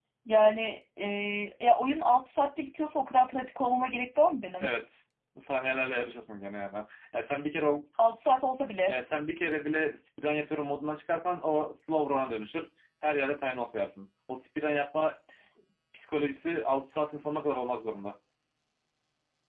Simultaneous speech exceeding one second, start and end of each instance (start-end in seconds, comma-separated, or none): none